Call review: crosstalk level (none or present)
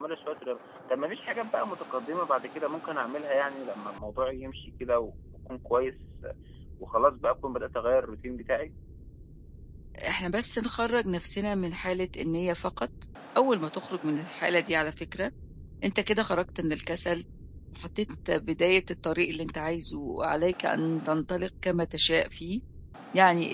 none